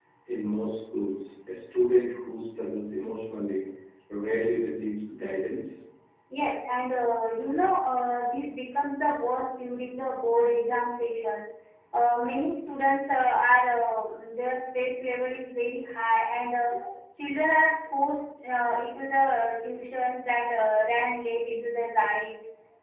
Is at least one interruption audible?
No

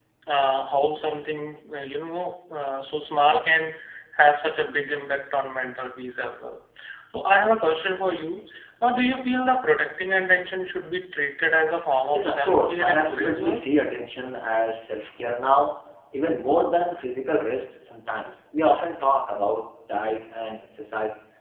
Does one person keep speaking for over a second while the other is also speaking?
Yes, from 12.1 s

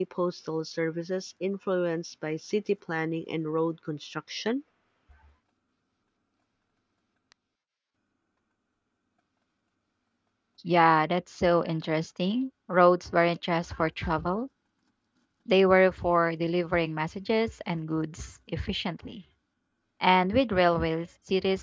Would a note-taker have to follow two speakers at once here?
No

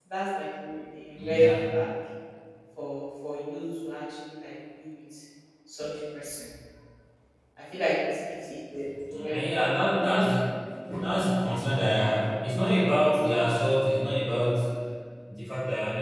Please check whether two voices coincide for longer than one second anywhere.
No

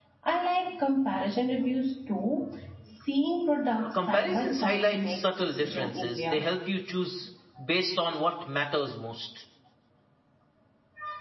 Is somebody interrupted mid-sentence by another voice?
Yes, from 3.9 s

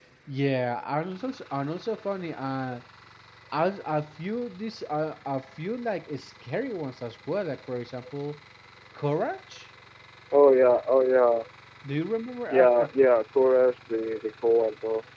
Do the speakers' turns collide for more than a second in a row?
No

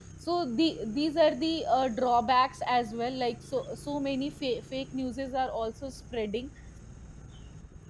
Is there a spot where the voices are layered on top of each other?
No

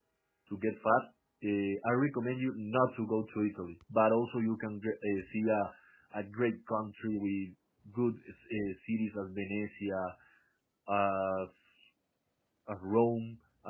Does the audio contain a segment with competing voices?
No

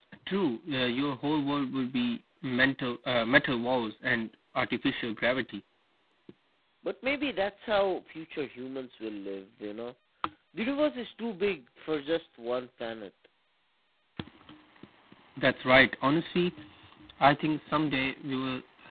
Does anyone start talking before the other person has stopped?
No

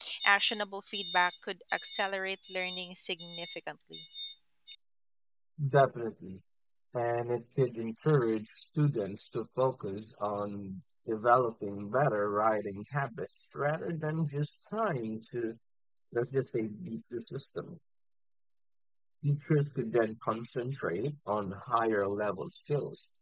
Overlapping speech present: No

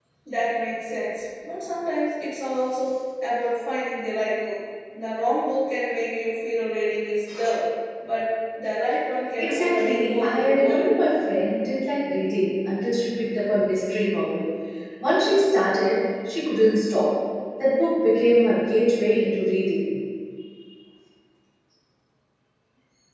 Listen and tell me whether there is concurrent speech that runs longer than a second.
Yes, from 9.4 s

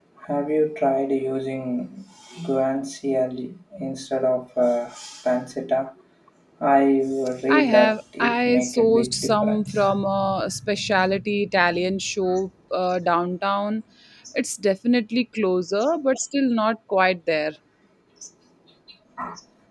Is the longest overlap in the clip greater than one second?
Yes, from 7.5 s

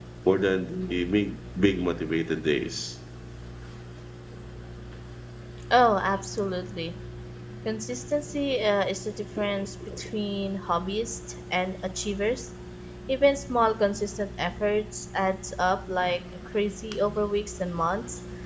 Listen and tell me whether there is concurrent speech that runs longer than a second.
No

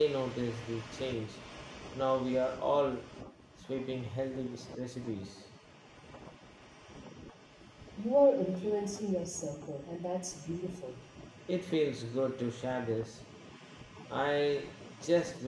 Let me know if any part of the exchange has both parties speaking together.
No

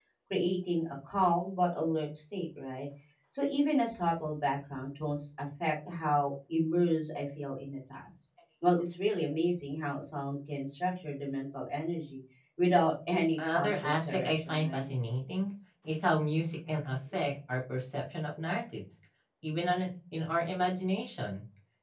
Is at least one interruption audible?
Yes, from 13.4 s

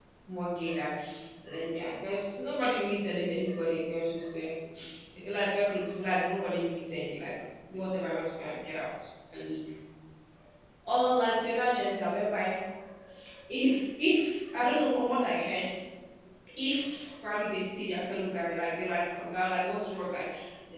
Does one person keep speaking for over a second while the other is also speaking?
No

